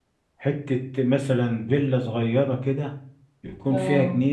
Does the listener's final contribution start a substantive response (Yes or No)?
No